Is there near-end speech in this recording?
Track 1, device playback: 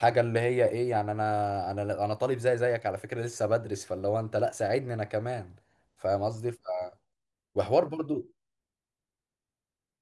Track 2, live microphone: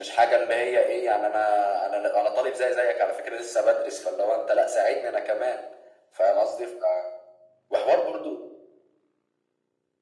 No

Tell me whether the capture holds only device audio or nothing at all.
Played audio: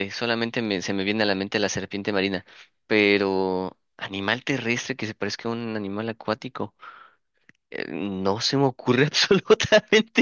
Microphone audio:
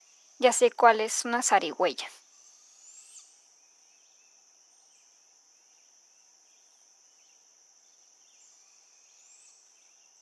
No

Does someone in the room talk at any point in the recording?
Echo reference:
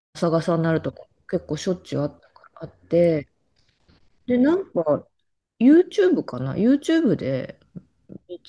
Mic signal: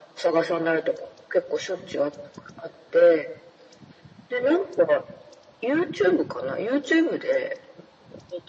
No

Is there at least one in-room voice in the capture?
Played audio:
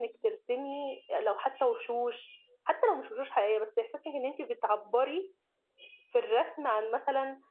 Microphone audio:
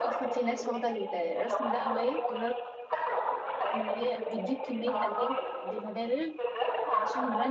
Yes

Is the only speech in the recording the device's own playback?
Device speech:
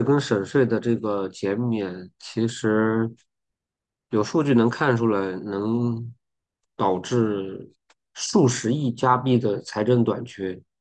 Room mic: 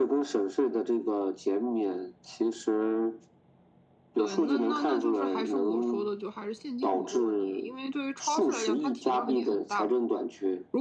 No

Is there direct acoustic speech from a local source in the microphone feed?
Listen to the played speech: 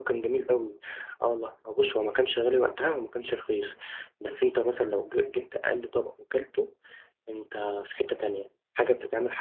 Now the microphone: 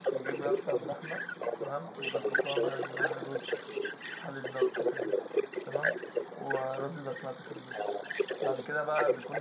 Yes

